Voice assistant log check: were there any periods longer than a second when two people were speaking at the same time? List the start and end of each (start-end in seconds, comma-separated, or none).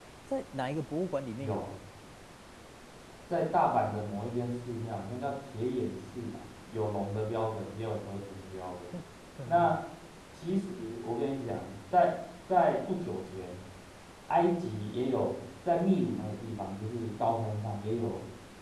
none